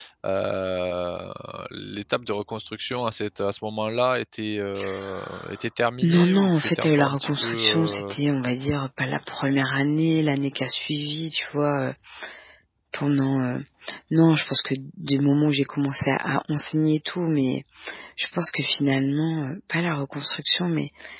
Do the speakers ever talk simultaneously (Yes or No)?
Yes